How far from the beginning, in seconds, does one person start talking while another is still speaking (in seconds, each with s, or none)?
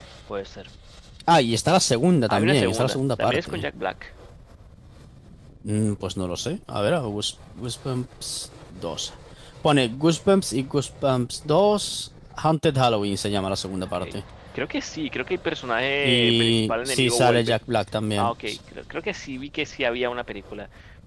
2.3 s